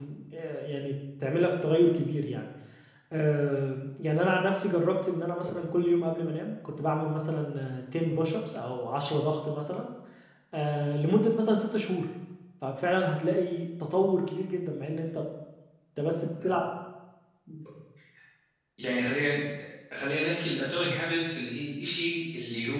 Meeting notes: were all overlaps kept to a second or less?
Yes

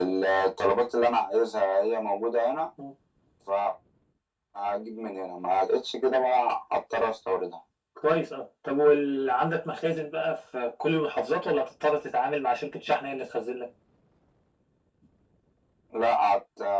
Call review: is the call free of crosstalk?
Yes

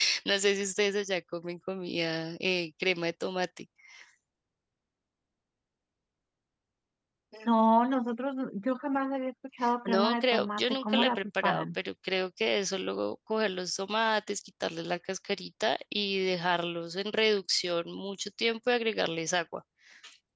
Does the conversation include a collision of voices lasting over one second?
Yes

